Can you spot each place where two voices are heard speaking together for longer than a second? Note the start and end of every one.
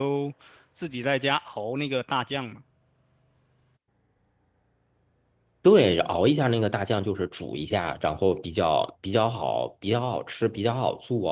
none

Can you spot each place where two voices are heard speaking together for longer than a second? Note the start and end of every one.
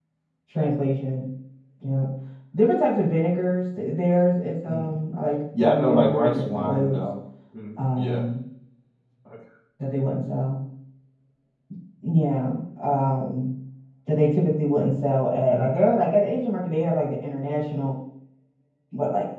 5.6-7.1

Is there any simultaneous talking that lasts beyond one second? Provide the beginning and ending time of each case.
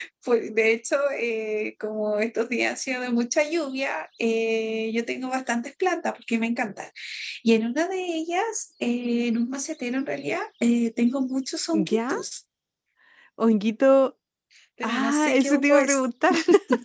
14.8-16.0

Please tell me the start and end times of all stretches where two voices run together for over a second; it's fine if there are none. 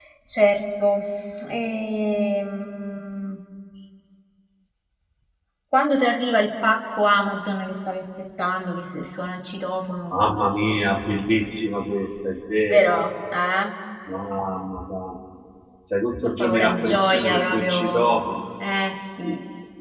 16.4-18.0

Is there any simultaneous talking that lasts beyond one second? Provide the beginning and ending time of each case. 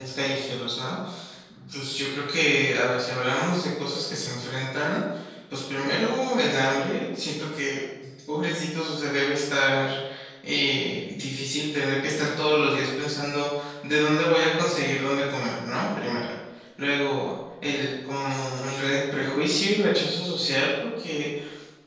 none

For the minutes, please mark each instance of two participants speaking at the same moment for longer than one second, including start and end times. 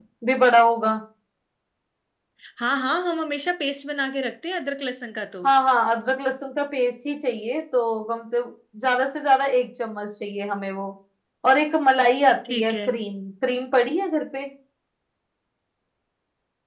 none

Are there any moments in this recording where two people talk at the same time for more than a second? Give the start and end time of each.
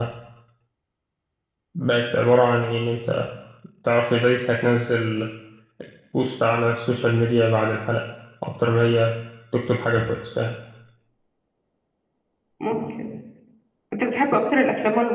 none

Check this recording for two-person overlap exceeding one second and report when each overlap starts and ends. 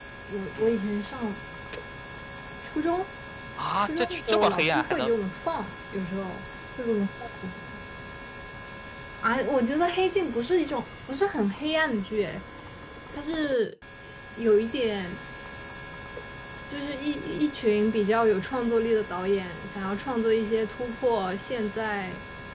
3.8-5.1

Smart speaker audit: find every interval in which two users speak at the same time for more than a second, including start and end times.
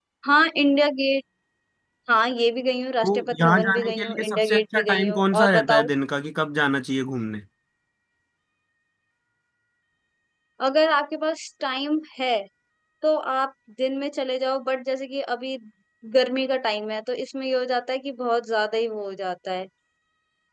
3.0-5.9

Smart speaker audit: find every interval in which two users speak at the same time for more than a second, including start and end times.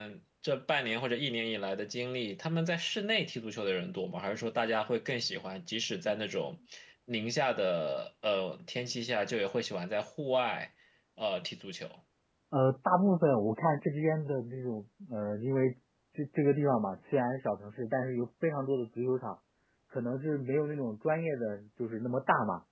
none

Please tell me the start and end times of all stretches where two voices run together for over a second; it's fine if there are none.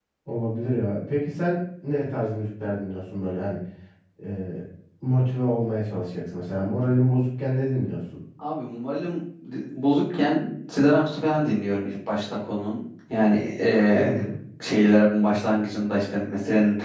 none

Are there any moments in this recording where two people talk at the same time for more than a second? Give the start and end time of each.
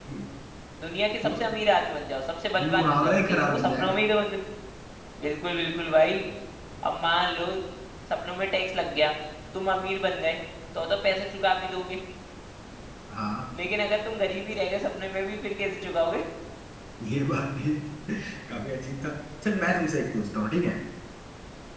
2.6-4.0

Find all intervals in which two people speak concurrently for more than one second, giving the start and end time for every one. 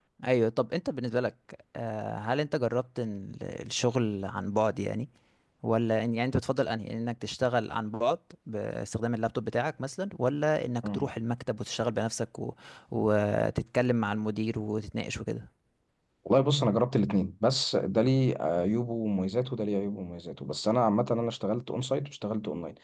none

